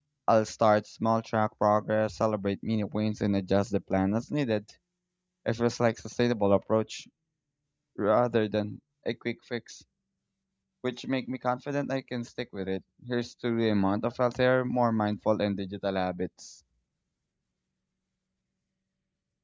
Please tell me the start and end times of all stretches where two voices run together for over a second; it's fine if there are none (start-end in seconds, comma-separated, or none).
none